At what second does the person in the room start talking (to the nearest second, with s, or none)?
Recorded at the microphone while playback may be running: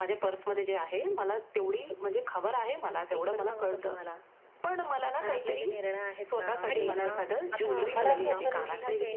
7 s